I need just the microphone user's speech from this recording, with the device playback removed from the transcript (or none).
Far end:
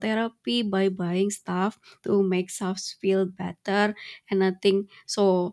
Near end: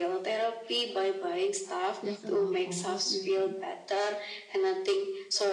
that's about all. What do you think?